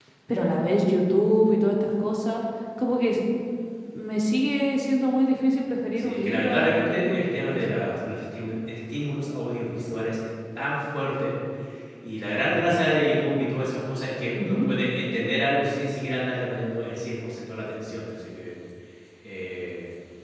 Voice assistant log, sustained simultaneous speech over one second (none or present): present